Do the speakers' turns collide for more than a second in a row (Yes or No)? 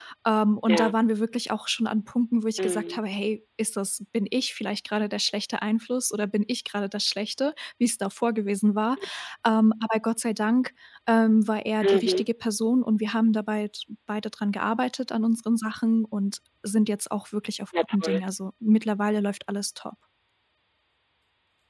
No